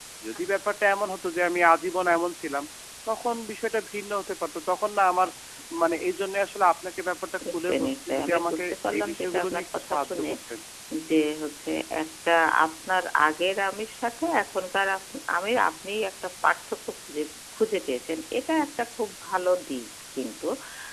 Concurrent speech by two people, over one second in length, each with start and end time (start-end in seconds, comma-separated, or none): 7.5-10.3